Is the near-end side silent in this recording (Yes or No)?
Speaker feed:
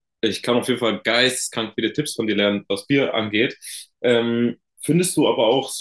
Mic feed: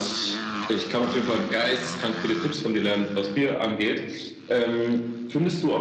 Yes